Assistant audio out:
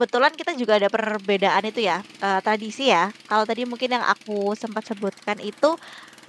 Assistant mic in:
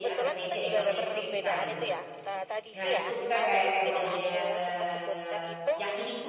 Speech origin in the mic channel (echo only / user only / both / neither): both